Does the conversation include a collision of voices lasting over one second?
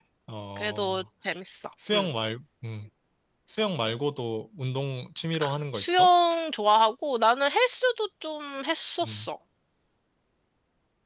No

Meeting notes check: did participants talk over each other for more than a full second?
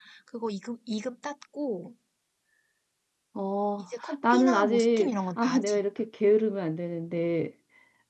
Yes, from 4.3 s

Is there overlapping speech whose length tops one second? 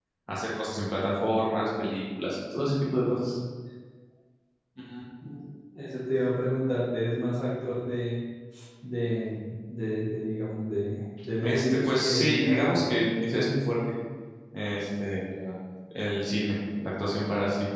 Yes, from 11.4 s

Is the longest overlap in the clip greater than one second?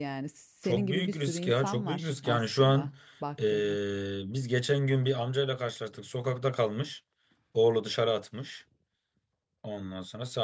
Yes, from 0.6 s

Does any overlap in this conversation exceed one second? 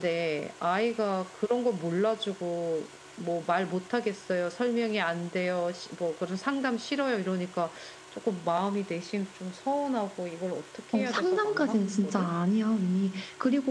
Yes, from 10.9 s

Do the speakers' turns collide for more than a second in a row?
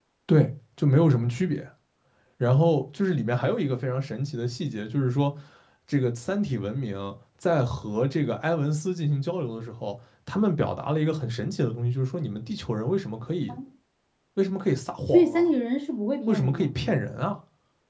No

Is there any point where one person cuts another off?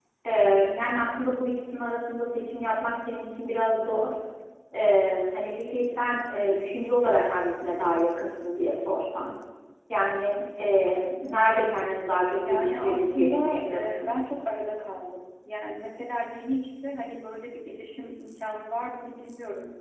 Yes, from 12.4 s

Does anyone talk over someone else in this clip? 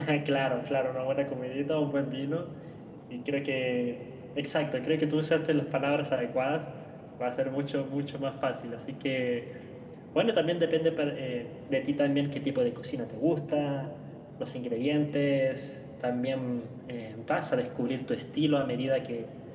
No

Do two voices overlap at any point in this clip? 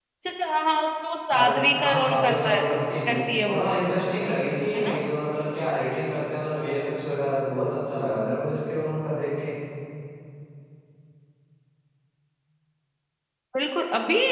Yes, from 1.3 s

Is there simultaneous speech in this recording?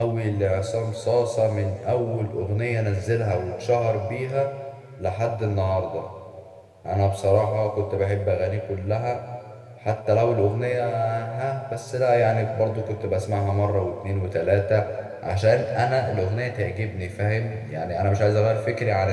No

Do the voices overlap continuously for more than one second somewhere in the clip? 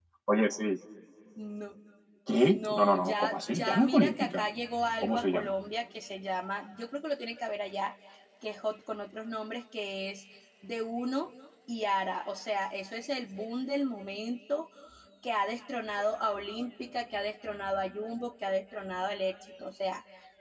Yes, from 2.4 s

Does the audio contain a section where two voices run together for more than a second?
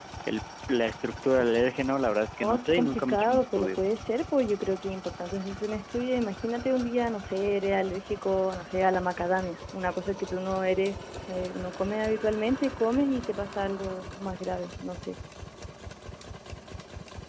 Yes, from 2.4 s

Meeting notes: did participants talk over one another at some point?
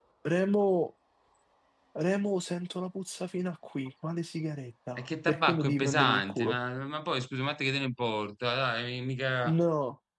Yes, from 5.0 s

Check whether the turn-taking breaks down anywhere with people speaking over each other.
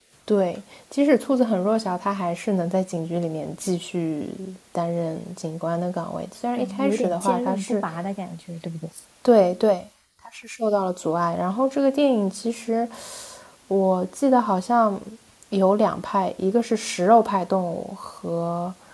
Yes, from 6.5 s

